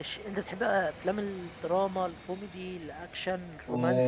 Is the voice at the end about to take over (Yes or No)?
Yes